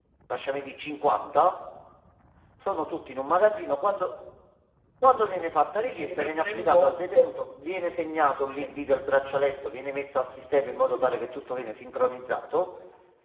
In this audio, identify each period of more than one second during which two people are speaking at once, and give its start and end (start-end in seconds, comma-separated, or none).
5.8-7.3